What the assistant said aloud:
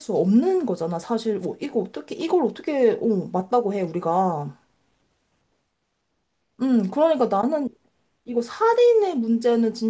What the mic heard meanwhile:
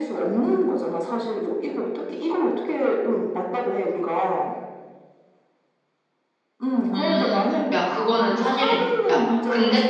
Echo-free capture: No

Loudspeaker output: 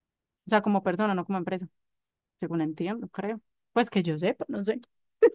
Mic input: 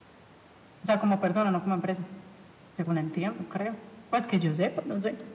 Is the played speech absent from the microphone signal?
No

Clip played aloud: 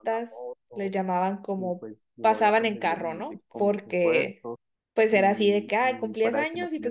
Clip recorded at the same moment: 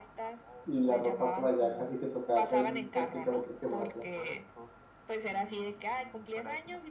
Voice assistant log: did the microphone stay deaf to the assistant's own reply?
No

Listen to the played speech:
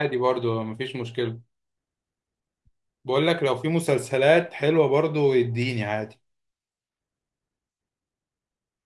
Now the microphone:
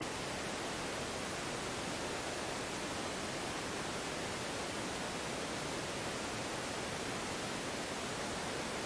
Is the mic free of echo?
Yes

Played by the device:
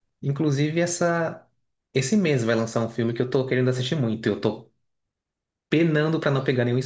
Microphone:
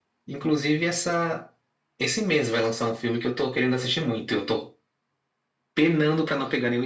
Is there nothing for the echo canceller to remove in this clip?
No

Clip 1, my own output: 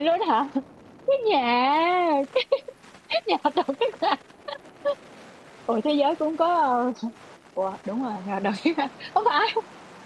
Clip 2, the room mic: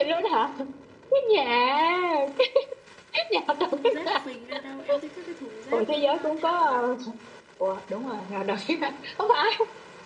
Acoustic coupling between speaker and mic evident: Yes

